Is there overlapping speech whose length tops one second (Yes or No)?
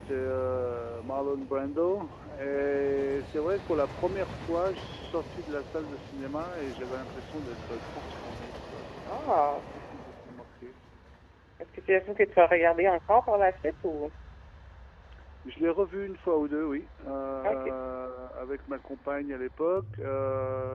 No